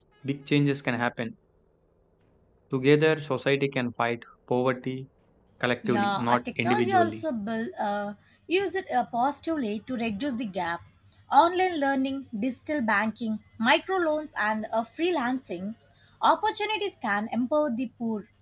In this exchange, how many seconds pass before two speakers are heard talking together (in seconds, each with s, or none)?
5.9 s